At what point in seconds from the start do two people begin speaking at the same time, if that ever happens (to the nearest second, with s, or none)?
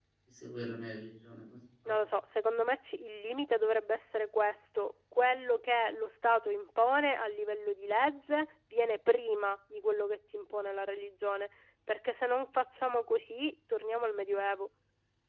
none